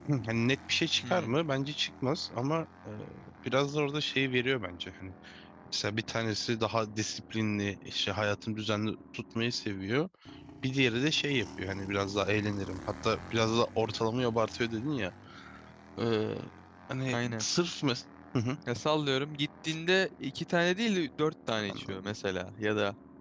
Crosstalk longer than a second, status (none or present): none